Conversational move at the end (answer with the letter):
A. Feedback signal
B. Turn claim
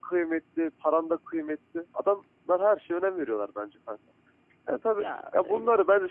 A